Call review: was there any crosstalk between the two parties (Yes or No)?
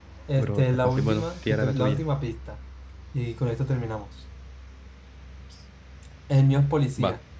Yes